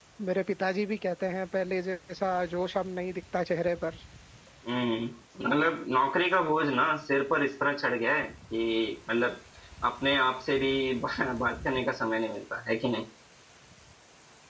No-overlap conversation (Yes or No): Yes